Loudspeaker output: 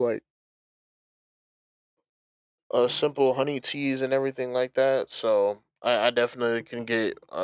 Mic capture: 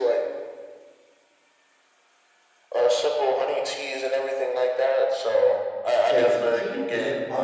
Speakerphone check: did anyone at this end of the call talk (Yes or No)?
Yes